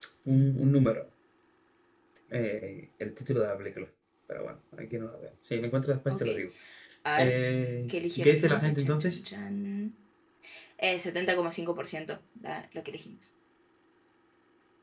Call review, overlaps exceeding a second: present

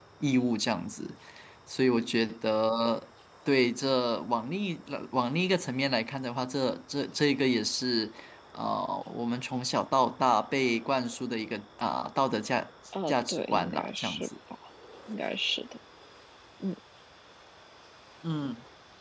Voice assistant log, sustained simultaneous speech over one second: present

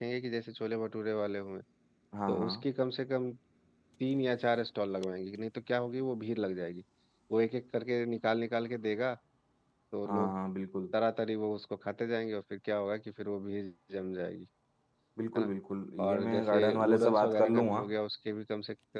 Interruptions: present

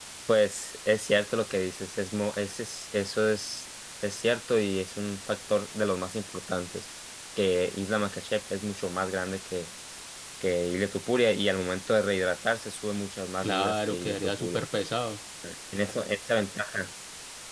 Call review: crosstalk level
present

